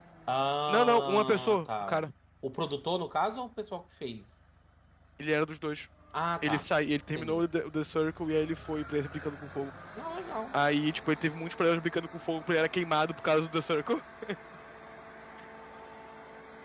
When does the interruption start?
0.7 s

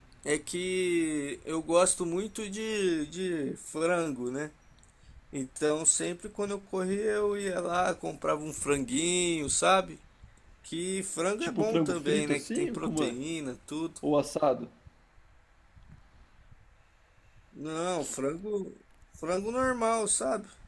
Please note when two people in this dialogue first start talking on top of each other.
11.4 s

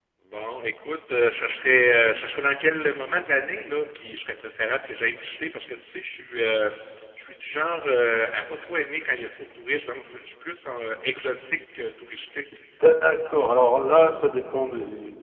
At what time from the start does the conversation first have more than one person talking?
none

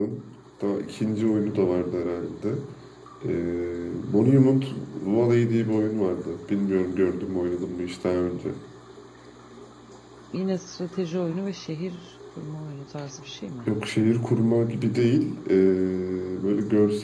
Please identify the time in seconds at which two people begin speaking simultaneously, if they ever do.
none

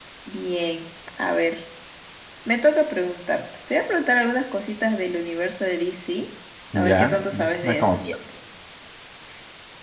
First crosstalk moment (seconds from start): 6.8 s

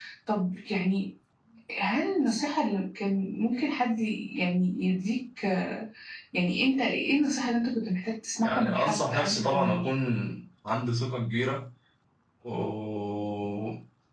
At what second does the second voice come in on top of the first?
8.4 s

